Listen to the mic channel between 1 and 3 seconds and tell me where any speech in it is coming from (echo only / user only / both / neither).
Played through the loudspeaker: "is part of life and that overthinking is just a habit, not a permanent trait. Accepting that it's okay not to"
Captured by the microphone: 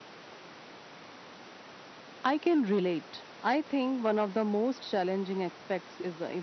user only